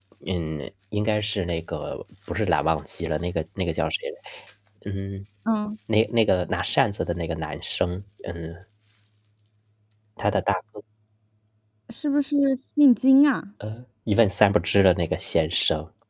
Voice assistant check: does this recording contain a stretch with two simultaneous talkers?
No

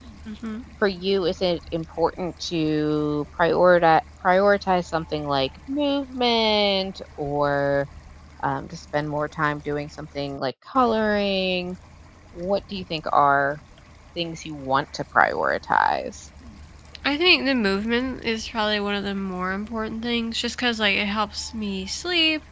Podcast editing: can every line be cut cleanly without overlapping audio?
Yes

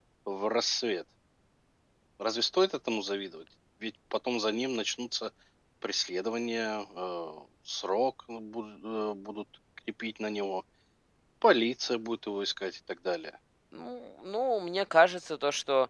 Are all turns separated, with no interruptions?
Yes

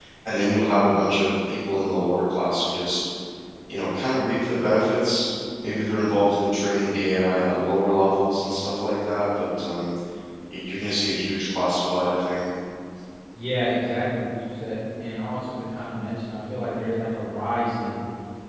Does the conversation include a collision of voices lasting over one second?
No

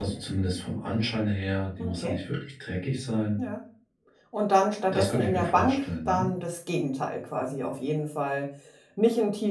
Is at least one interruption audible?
Yes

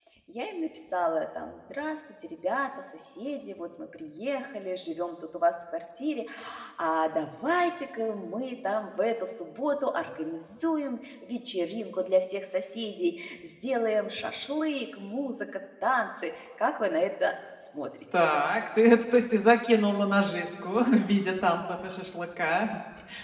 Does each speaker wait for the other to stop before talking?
Yes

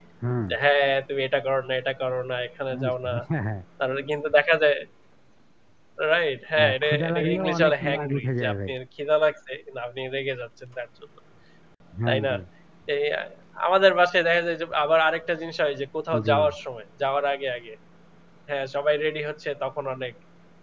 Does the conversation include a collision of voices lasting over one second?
Yes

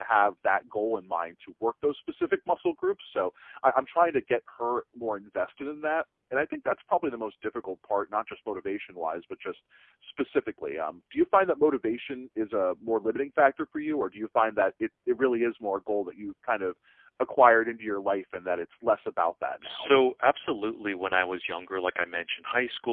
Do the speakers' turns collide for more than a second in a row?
No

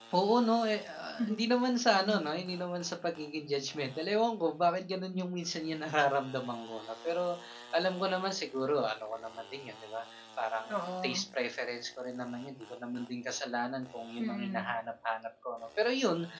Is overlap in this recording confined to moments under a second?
Yes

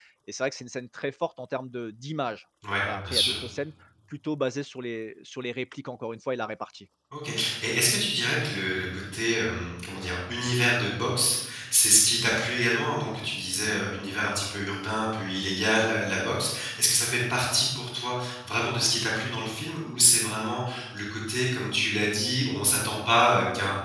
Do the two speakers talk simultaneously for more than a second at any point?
No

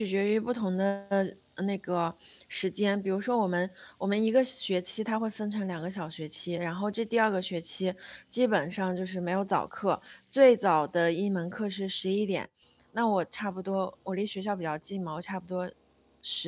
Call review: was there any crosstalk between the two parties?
No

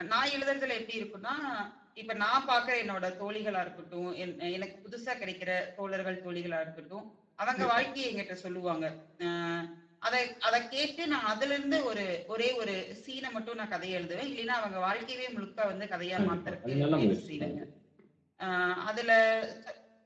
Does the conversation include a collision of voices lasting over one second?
Yes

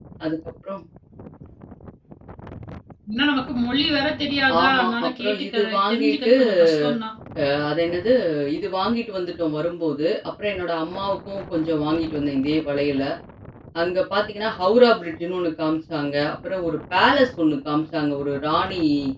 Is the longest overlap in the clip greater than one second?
Yes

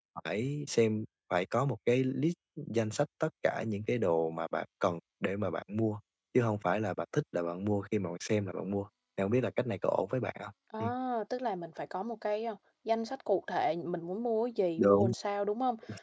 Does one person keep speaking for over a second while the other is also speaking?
No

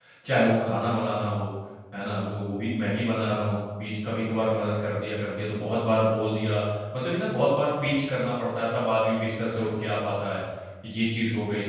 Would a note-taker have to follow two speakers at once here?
No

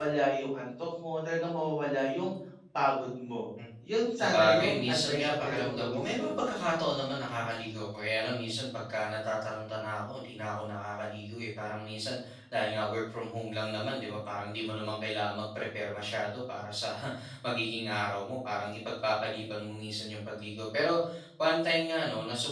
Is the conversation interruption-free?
No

